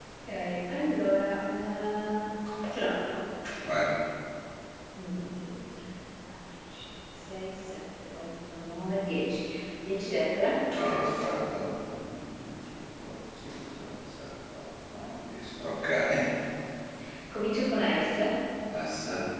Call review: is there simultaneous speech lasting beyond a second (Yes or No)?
No